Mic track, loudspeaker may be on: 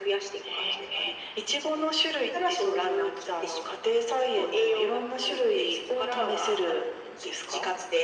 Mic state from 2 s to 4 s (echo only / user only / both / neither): echo only